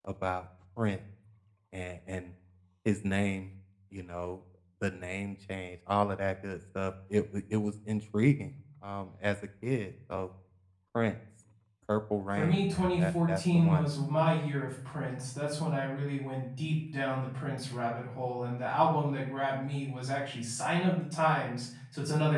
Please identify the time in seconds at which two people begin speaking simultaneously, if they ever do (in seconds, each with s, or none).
12.4 s